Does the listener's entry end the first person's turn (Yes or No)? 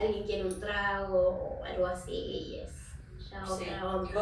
Yes